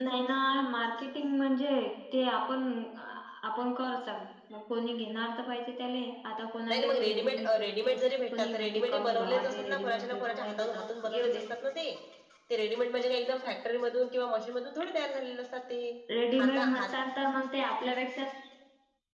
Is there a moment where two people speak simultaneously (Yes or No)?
Yes